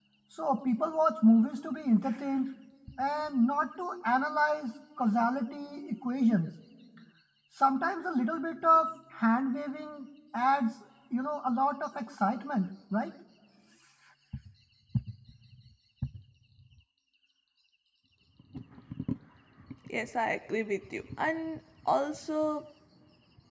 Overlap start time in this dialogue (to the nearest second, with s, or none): none